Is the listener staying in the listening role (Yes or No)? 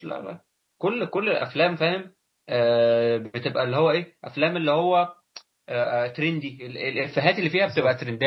Yes